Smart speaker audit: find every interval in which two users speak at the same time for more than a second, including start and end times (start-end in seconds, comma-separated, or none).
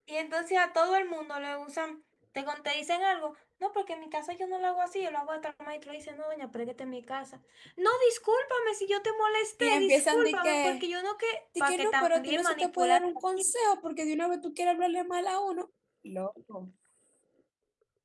9.6-10.8, 11.6-13.0